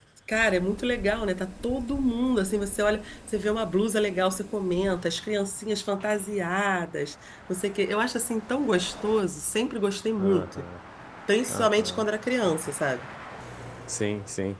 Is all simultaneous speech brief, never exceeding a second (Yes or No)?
Yes